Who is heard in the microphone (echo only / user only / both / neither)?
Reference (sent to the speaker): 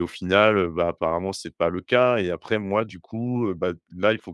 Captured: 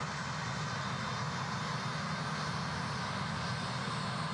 neither